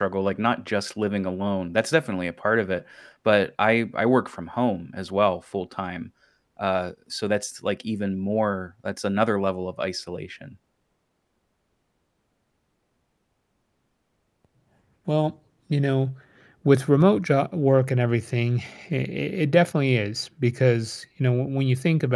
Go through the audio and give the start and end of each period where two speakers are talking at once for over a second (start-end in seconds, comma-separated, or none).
none